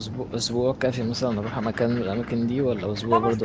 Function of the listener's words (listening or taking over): taking over